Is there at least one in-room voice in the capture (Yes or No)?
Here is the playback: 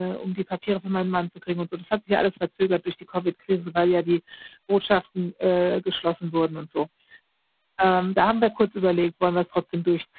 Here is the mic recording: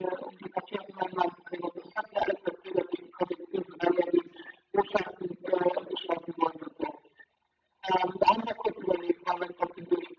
No